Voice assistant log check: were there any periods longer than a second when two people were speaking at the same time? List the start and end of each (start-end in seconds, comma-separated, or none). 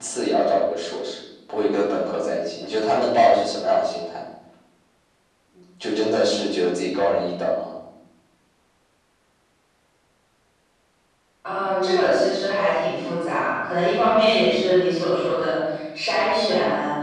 none